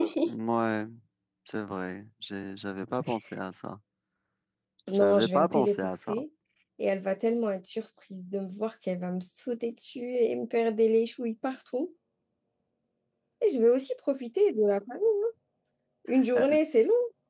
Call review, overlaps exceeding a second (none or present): present